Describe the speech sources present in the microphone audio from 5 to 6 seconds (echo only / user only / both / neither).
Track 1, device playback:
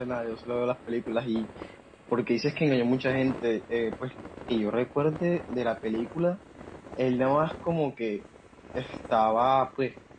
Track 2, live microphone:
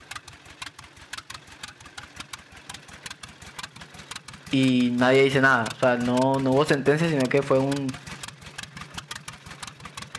user only